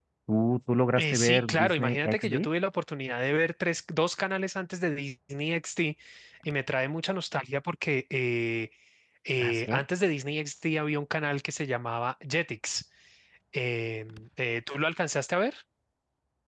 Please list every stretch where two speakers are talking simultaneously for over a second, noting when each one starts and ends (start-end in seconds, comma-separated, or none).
1.0-2.5